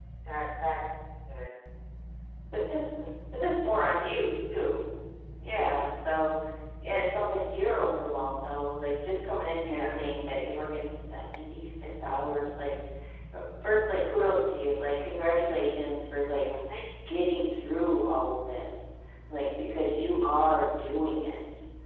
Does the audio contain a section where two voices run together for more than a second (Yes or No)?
No